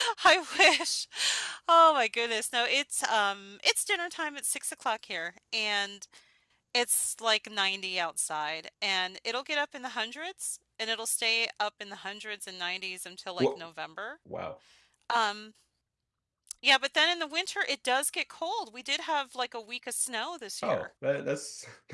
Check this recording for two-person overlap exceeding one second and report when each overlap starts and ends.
none

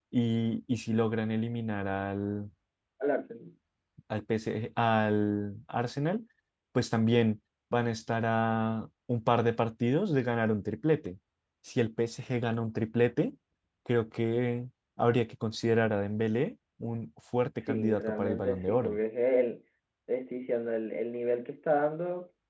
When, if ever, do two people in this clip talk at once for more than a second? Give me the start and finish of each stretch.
17.7-19.0

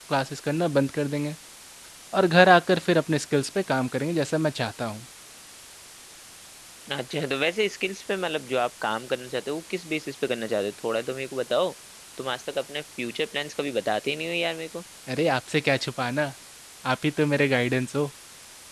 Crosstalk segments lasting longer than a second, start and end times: none

